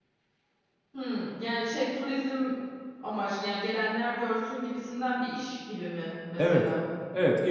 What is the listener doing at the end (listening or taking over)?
taking over